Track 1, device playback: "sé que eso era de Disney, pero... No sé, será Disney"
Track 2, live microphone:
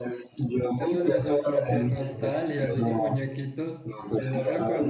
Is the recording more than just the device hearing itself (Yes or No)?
Yes